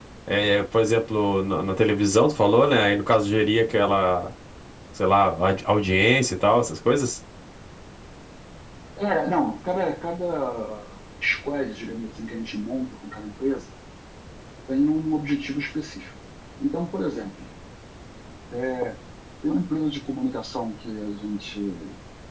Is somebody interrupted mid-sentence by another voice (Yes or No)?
No